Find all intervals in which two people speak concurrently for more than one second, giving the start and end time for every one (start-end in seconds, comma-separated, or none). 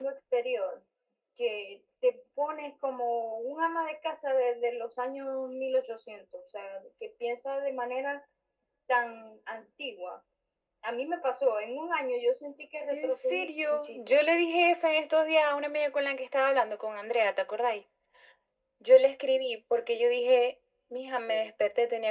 12.9-14.4